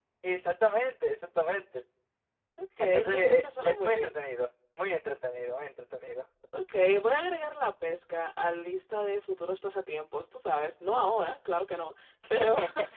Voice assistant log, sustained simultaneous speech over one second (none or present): present